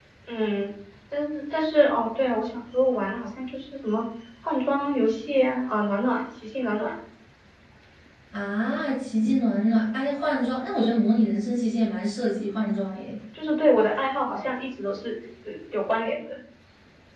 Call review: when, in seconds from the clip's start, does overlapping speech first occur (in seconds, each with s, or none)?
none